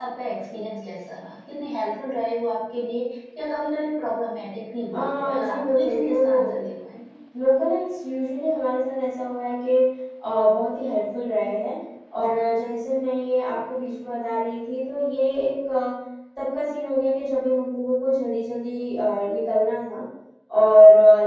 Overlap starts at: 5 s

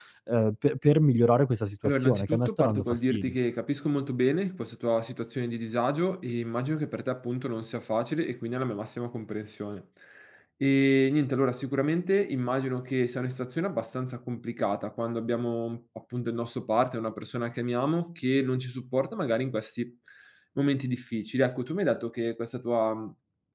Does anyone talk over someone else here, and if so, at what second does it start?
2 s

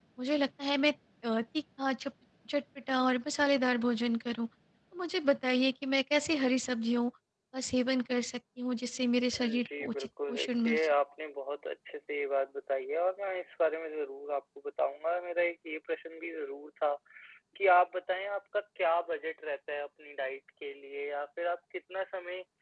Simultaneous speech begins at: 9 s

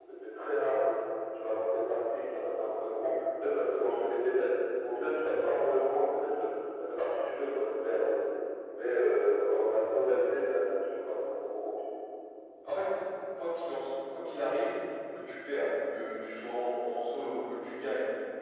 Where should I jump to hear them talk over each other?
none

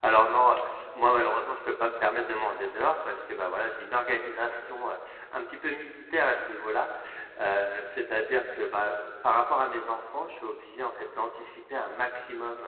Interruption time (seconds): none

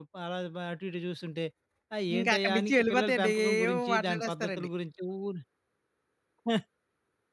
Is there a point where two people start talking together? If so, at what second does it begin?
2 s

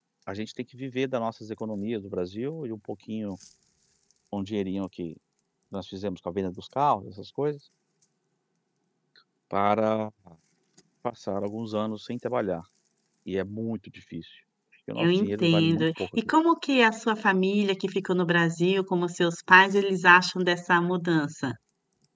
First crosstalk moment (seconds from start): 15 s

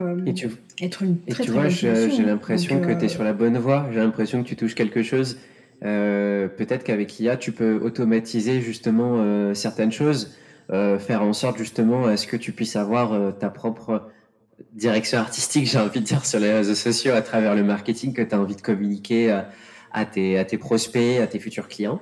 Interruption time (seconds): 1 s

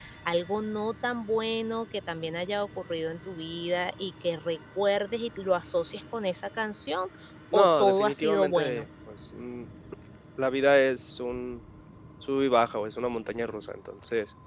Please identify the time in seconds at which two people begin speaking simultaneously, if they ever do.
8 s

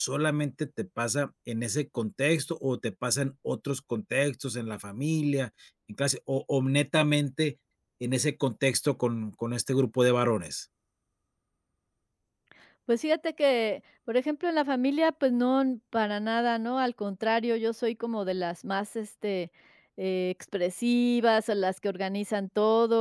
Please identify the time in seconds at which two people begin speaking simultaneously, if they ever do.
none

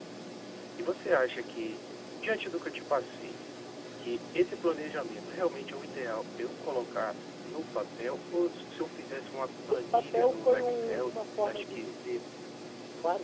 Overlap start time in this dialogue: 10 s

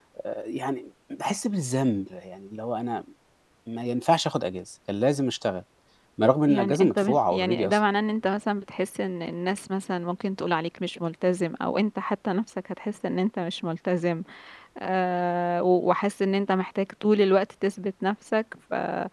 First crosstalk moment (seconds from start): 6 s

